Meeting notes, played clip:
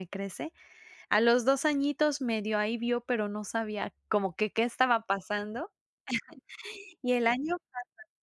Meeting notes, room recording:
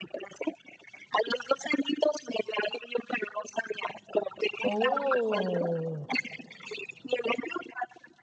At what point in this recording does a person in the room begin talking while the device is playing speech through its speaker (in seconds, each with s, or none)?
4.6 s